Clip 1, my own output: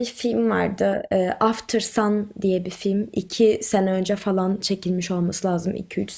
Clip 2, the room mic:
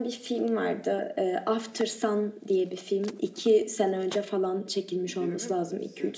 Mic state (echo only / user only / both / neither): both